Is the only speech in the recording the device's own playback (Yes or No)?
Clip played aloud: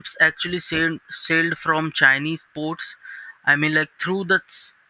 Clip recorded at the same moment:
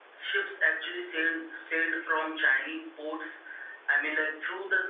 Yes